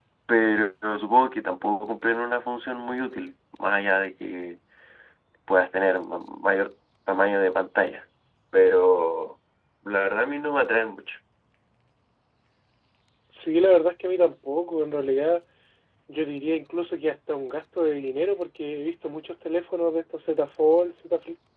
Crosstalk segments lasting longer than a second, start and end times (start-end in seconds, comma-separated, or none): none